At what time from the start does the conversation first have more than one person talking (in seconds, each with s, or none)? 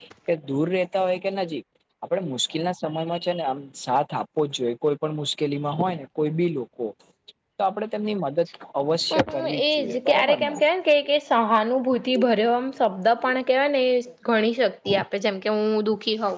9.1 s